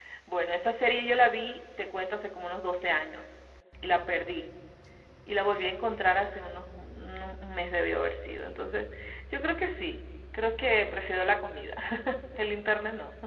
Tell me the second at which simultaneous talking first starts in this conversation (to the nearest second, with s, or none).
none